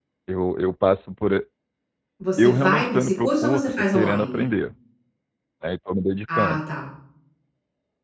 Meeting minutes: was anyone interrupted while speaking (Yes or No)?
Yes